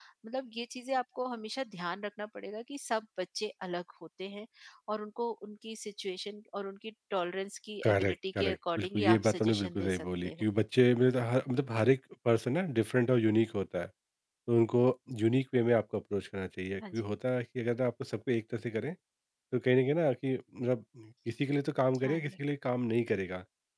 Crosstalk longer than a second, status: present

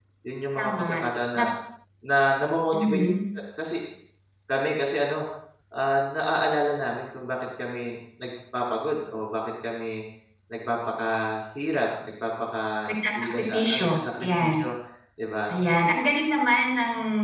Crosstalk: present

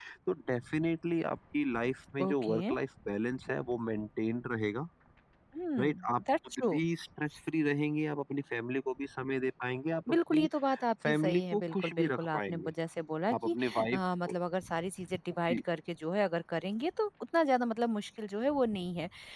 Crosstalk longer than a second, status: present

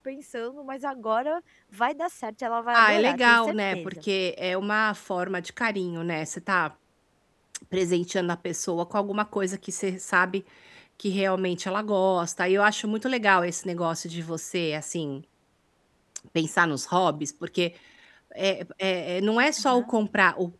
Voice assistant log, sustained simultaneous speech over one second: present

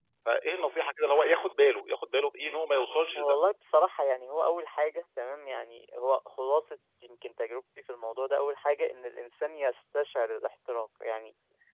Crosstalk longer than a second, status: none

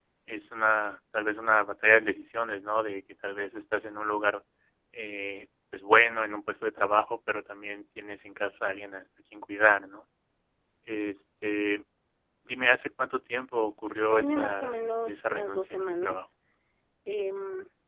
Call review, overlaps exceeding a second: present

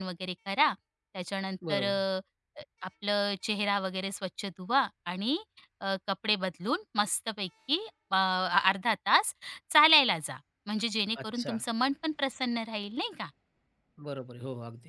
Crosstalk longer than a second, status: none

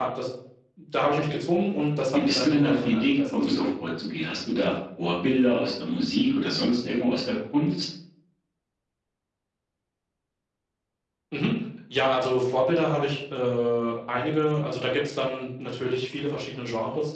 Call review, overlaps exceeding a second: present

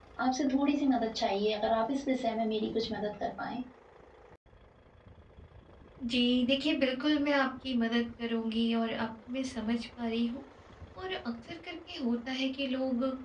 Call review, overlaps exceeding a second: none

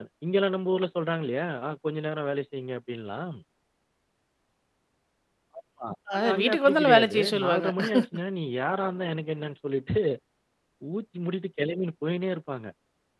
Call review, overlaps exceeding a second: present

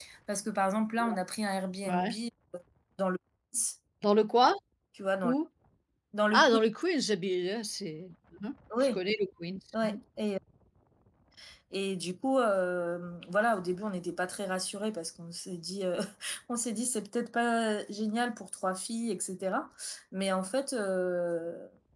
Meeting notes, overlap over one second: none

